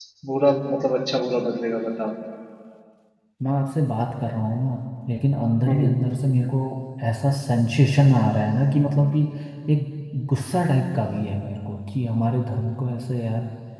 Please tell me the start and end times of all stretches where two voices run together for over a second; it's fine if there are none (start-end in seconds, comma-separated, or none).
none